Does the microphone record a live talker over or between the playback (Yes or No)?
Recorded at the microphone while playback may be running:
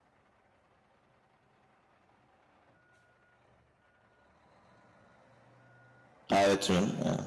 Yes